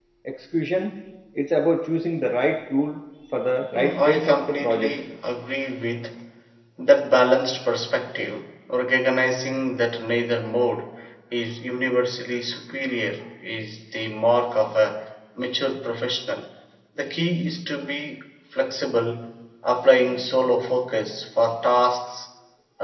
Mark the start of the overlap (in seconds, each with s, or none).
3.7 s